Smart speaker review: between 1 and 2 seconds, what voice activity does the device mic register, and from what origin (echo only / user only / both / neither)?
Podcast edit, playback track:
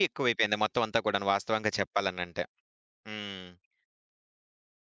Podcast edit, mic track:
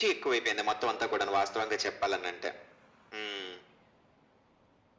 echo only